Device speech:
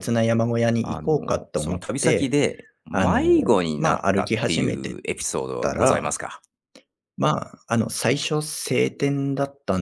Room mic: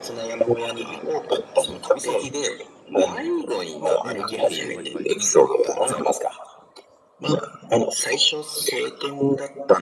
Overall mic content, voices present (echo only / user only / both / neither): both